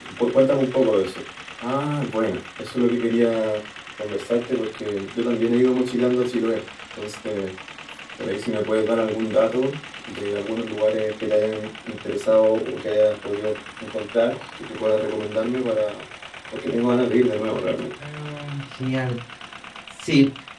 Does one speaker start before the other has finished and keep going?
No

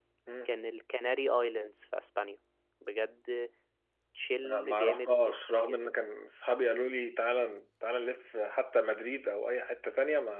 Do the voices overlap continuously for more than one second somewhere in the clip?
Yes, from 4.3 s

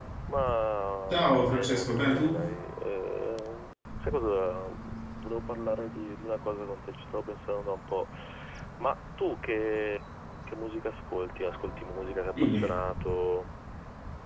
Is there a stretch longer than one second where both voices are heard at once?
Yes, from 1.1 s

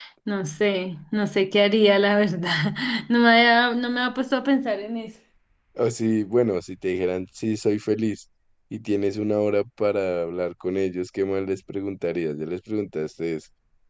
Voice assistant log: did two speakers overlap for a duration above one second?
No

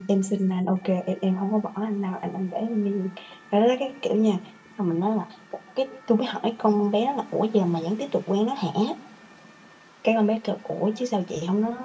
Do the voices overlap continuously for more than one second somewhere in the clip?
No

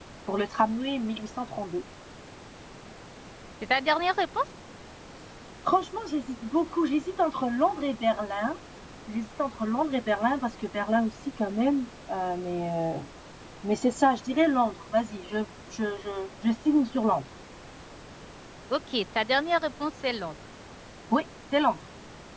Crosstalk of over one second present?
No

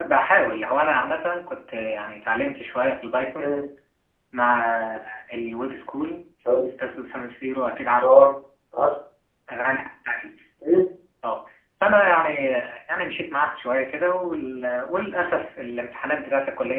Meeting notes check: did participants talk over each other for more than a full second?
No

